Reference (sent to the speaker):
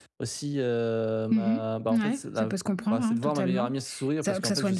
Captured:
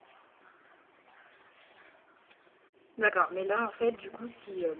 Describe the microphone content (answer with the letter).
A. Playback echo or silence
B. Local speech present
B